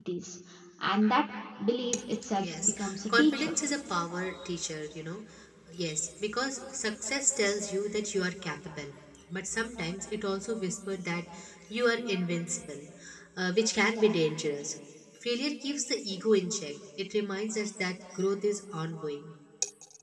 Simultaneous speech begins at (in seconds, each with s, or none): 2.3 s